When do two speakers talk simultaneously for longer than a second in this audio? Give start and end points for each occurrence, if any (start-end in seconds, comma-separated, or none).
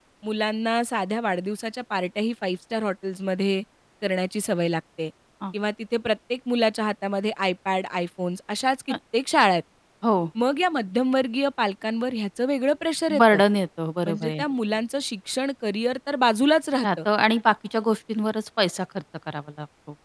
none